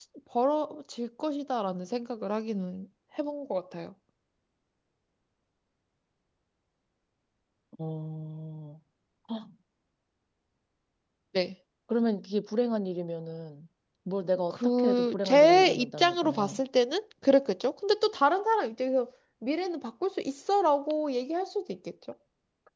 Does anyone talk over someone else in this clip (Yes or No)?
Yes